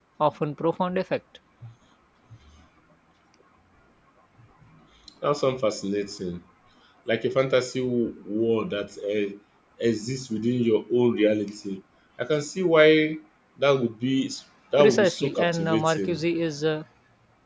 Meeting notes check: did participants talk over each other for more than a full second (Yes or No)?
Yes